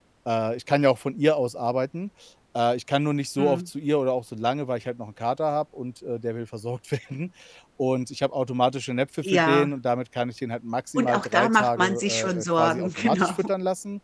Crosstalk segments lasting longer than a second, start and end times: 10.9-13.5

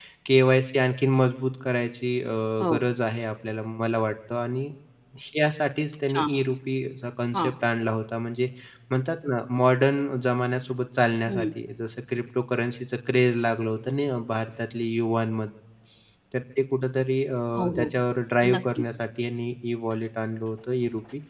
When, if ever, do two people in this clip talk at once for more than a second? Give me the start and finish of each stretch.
none

